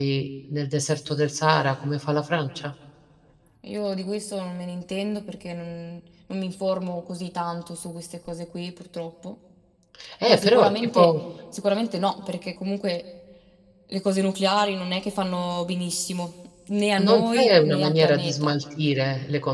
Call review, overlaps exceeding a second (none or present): present